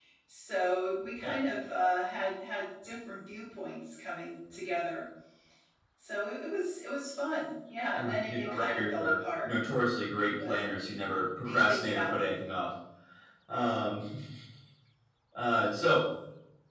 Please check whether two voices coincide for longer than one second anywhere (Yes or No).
Yes